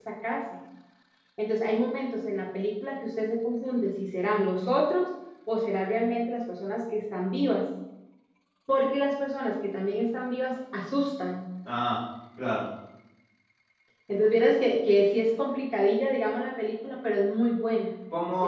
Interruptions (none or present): none